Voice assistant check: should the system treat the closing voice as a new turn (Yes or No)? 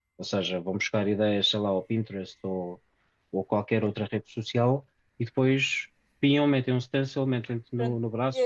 Yes